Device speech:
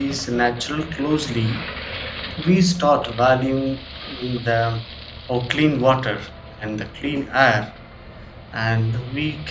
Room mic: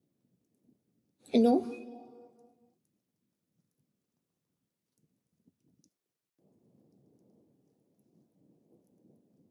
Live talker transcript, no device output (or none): no,